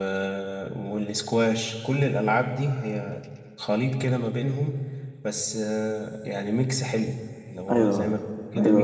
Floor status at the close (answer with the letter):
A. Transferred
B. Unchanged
A